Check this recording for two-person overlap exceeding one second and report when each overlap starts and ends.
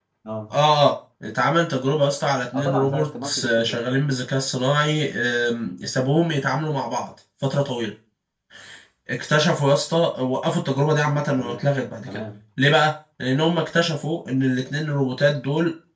2.6-3.8

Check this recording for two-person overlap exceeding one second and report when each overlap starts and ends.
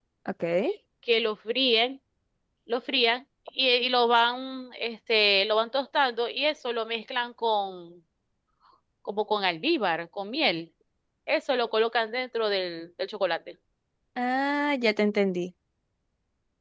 none

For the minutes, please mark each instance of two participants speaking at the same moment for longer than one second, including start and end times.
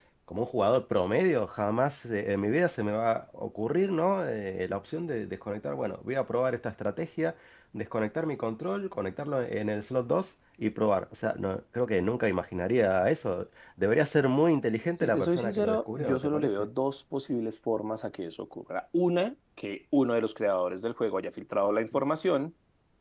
15.0-16.5

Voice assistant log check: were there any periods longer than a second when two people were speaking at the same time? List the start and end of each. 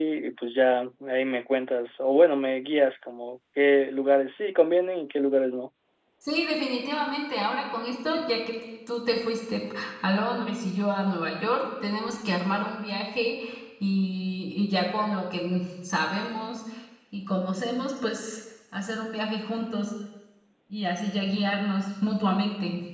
none

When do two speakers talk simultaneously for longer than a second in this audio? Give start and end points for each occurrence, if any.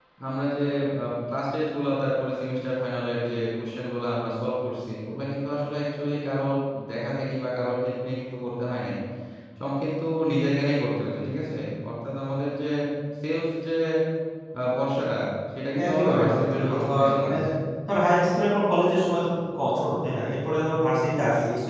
15.9-17.4

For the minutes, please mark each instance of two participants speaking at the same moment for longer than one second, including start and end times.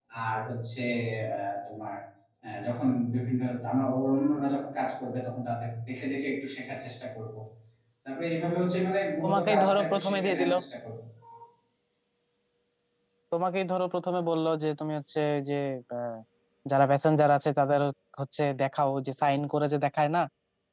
9.2-10.5

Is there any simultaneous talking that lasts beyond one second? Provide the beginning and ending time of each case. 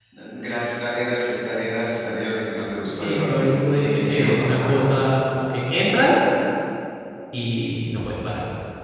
2.9-5.0

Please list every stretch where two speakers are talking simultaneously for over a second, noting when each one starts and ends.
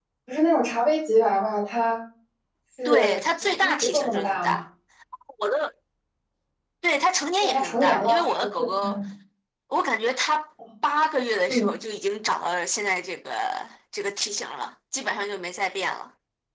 2.9-4.6, 7.4-9.0

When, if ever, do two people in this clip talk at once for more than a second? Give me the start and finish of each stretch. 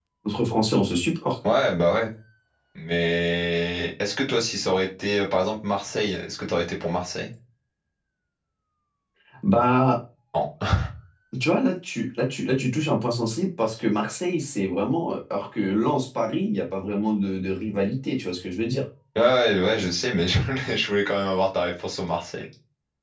none

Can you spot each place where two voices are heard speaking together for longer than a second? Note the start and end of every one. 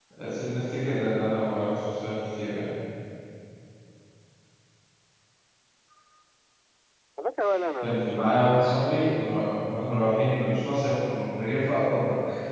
7.8-9.4

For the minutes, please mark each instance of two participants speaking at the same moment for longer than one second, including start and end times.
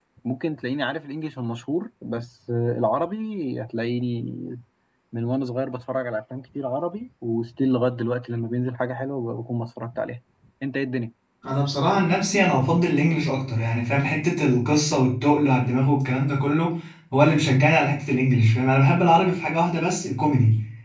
none

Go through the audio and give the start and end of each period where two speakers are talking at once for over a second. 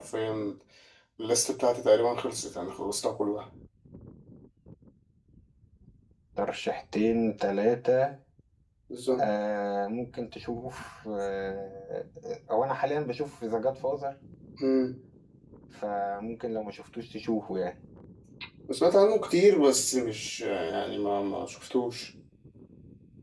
none

